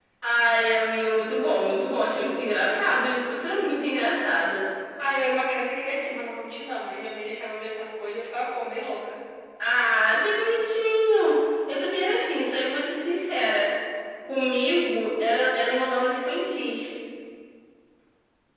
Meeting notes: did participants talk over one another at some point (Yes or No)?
No